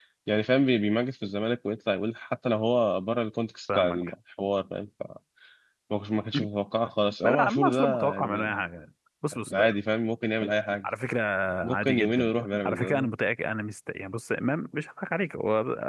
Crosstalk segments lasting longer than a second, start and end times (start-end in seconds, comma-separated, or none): 7.2-8.5, 11.7-13.1